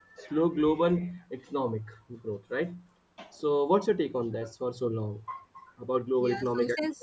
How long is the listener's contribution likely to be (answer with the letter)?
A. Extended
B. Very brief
A